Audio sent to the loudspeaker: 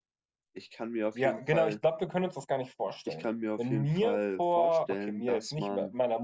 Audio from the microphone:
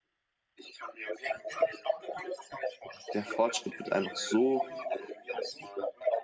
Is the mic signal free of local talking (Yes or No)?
No